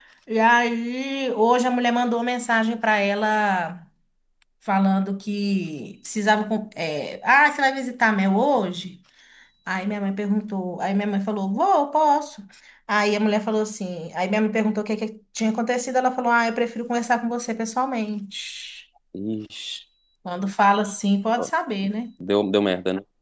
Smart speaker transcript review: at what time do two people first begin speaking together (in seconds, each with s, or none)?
none